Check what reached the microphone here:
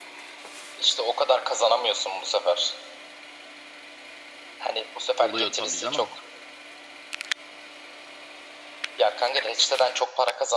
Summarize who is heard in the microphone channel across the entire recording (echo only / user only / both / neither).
both